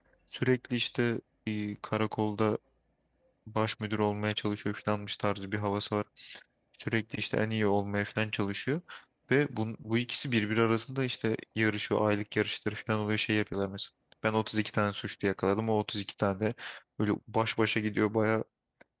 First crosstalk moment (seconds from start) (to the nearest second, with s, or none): none